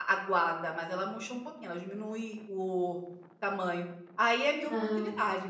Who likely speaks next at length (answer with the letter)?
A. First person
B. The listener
A